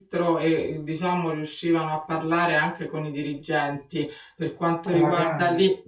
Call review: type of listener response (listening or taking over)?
listening